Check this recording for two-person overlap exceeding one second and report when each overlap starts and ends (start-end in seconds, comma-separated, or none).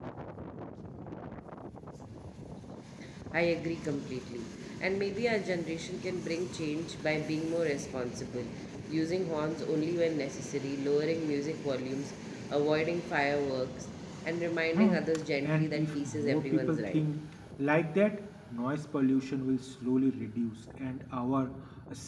15.4-17.0